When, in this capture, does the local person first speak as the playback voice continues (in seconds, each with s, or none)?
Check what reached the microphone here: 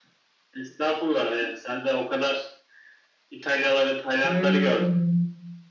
4.2 s